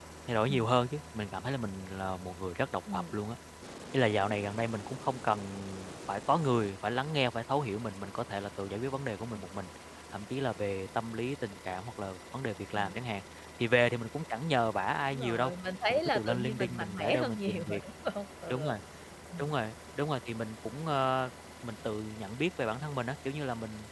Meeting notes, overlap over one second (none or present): present